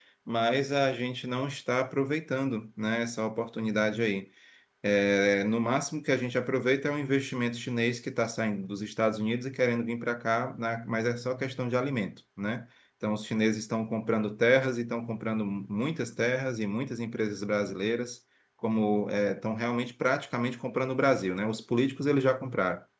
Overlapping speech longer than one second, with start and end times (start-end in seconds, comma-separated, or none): none